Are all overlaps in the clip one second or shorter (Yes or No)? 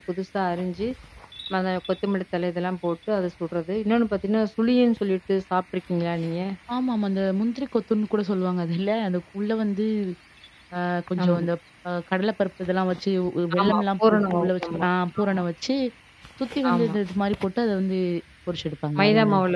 No